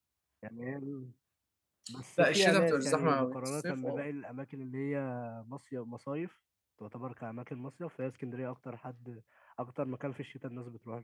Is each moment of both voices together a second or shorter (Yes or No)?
No